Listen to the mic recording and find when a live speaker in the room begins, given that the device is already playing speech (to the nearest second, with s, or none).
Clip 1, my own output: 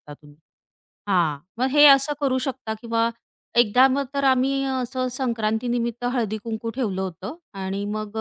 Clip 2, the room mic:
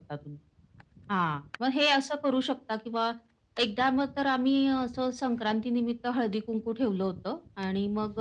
none